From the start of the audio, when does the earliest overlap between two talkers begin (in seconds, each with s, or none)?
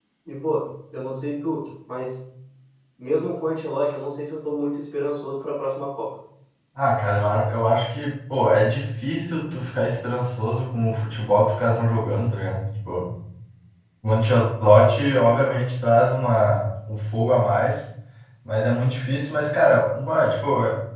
none